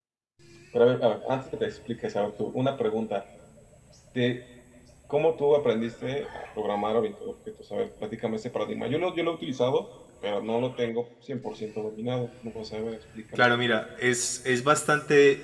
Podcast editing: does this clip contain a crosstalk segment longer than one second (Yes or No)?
No